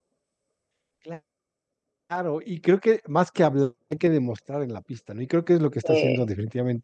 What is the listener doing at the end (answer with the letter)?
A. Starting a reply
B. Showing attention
B